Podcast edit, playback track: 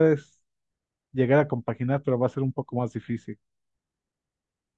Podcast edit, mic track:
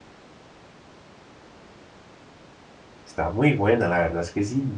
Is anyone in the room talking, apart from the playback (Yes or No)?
Yes